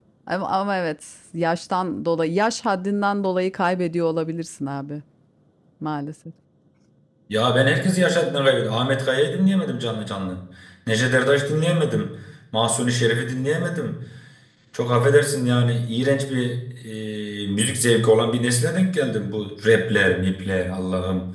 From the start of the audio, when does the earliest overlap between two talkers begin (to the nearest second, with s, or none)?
none